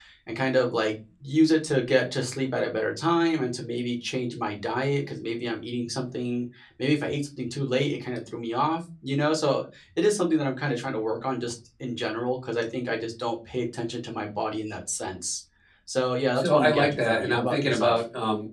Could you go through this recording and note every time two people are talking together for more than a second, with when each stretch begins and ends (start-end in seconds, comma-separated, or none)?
16.3-18.0